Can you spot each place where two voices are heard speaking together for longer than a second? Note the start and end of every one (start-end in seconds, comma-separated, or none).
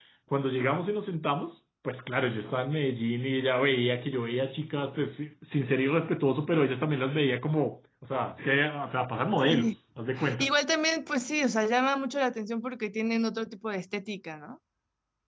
none